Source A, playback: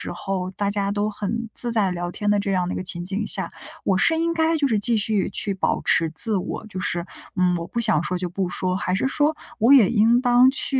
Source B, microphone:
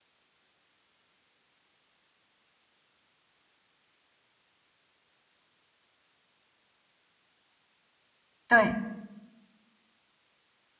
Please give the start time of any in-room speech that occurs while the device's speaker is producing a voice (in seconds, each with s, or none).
8.5 s